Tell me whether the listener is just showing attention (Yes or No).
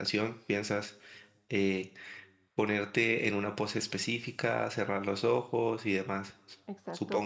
No